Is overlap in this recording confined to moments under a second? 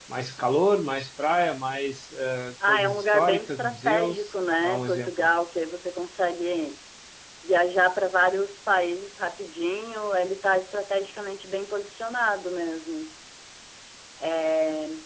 No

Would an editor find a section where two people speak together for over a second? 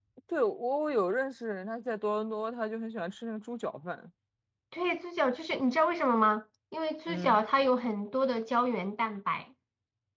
No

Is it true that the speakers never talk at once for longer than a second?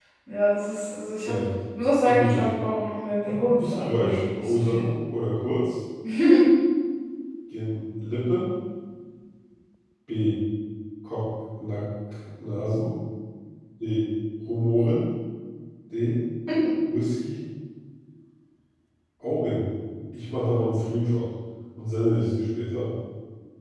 No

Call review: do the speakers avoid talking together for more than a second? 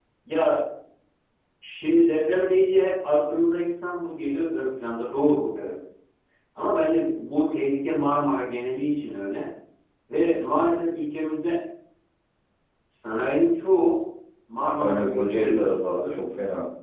No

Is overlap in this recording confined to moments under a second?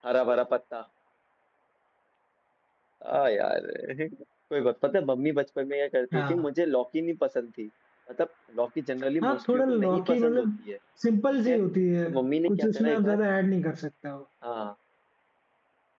No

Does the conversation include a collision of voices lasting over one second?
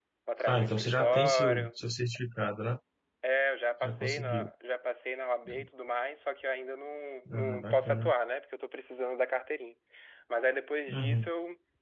Yes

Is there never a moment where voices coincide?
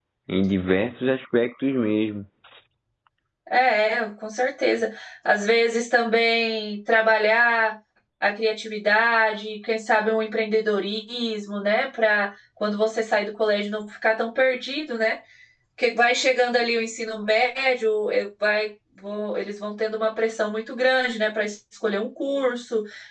Yes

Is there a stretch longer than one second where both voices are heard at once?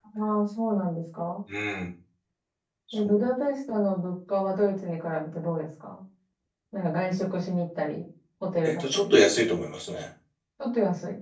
No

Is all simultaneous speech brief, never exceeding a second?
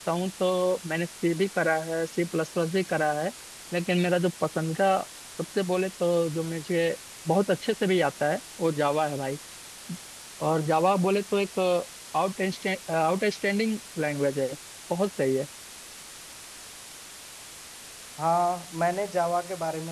Yes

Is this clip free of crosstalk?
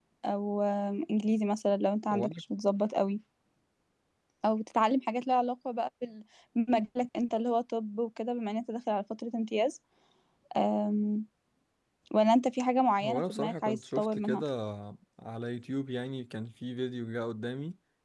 No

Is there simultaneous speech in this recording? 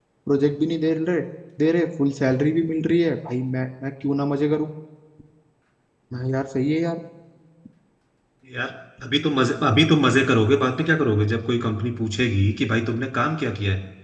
No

